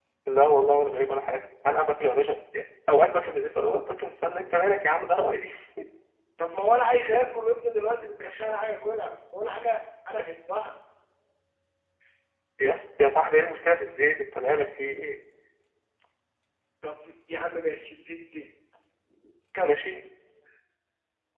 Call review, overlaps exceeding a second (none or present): none